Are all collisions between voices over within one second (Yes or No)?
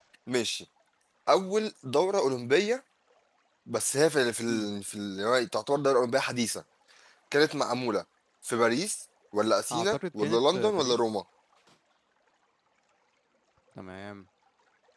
No